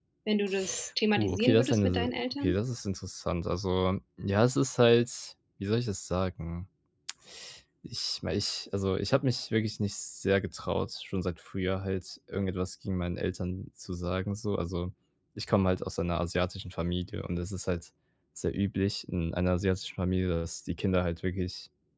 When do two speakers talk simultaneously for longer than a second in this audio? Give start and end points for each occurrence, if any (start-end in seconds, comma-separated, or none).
1.2-2.6